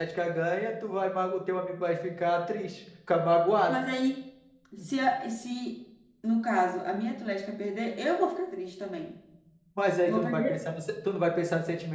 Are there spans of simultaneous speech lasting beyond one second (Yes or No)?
No